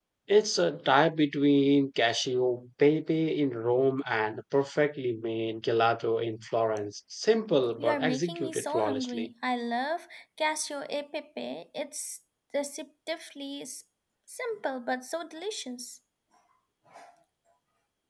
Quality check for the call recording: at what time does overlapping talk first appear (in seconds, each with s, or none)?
7.8 s